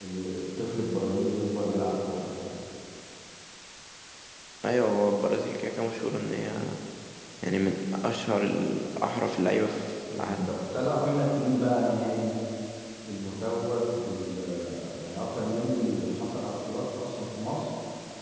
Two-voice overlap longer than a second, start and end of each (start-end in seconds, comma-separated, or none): none